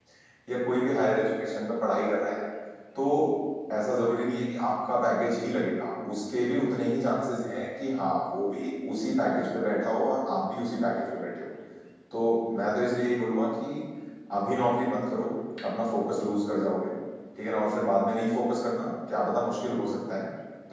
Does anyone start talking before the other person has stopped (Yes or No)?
No